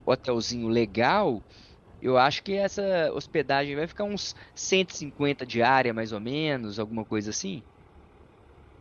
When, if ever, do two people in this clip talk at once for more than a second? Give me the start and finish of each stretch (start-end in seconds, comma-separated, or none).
none